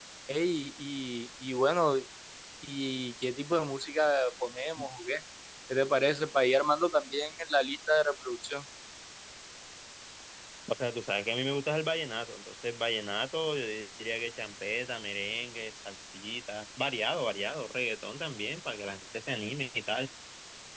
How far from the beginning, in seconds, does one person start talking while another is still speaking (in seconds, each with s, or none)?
none